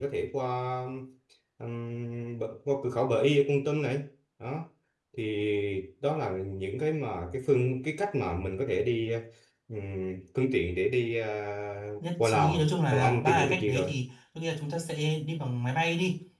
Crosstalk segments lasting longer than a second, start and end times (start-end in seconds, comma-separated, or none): 12.2-13.9